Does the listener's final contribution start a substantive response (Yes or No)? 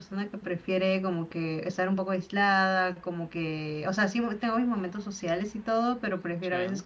No